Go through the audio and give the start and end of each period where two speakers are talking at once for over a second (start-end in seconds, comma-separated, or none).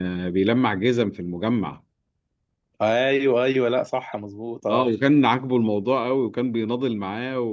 none